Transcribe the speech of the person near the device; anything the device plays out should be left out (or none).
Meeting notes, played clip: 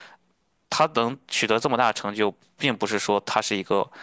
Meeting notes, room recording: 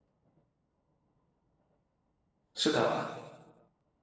是的。